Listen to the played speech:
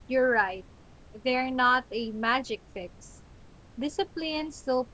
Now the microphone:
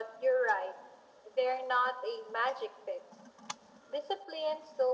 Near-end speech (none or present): none